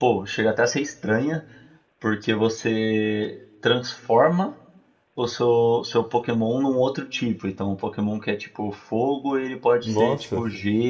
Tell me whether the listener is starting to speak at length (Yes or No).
No